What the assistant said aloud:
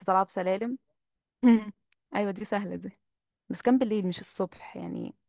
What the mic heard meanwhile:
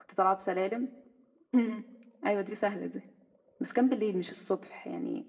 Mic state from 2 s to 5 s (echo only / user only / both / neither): echo only